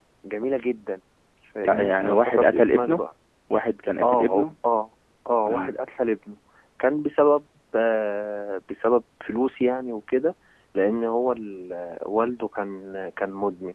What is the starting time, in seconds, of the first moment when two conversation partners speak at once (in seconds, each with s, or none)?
1.7 s